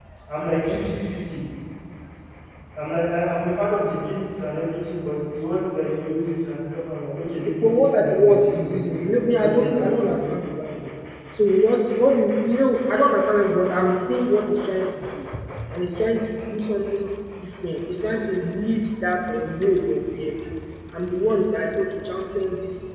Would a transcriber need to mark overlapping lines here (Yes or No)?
Yes